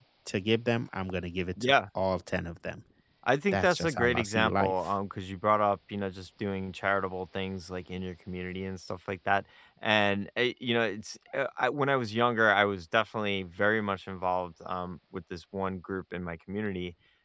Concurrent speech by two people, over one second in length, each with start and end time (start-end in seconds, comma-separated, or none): 3.5-4.7